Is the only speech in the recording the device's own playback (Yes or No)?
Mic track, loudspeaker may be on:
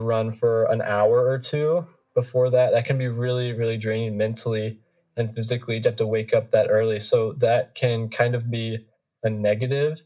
Yes